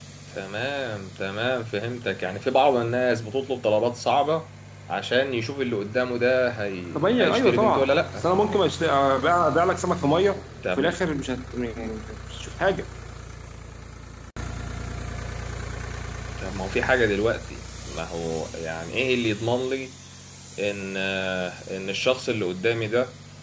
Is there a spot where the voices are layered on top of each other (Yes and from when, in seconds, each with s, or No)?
Yes, from 7.0 s